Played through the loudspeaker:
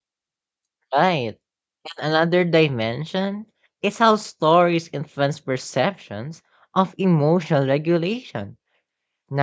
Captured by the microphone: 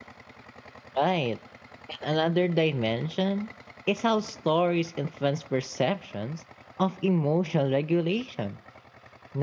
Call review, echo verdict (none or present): present